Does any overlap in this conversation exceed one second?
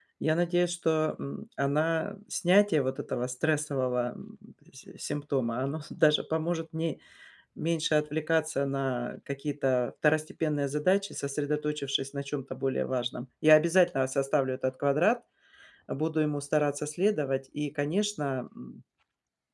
No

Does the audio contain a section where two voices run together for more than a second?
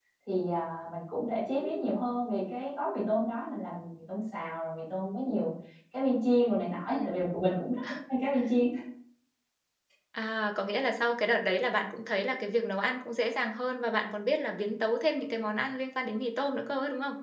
No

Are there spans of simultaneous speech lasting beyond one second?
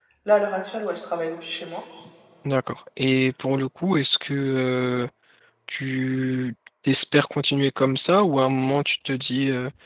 No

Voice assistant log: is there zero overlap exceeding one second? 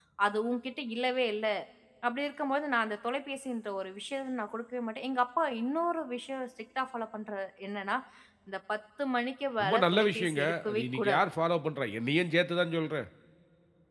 No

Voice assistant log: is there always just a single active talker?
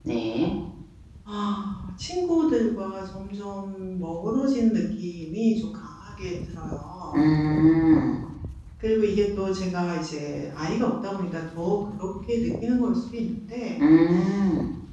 Yes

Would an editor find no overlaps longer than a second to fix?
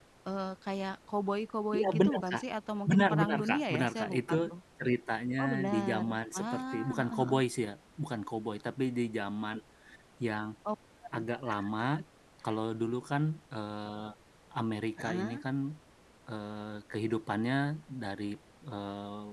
No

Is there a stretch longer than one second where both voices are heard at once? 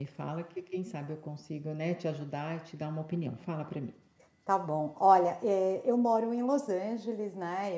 No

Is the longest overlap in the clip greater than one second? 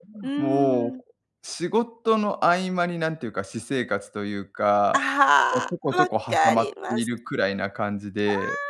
Yes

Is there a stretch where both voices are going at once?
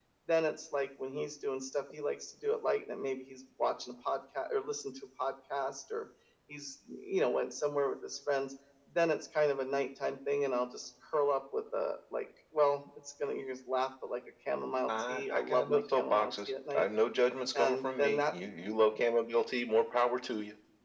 Yes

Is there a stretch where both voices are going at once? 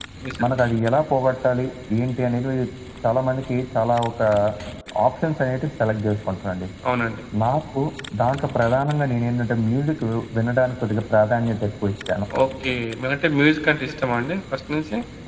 No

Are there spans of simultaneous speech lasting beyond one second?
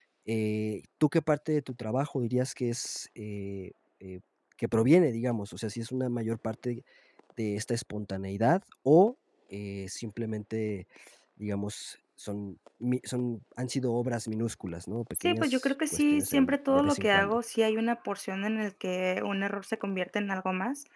Yes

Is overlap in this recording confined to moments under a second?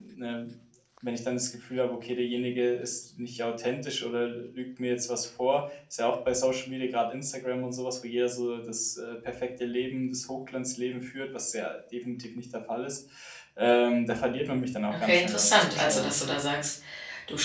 No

